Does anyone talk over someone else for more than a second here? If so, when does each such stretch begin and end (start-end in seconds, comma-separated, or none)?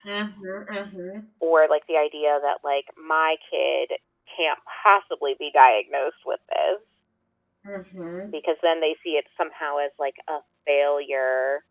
none